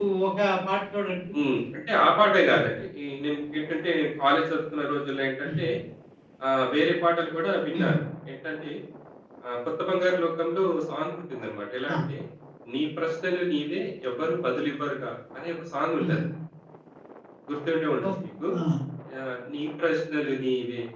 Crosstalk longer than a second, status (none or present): none